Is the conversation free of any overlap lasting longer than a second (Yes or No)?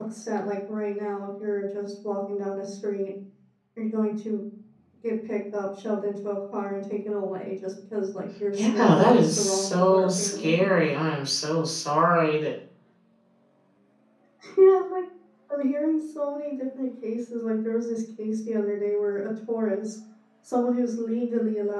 No